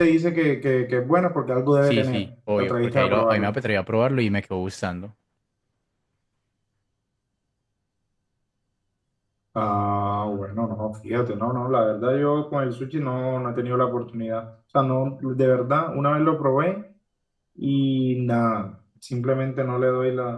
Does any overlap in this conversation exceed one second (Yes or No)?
Yes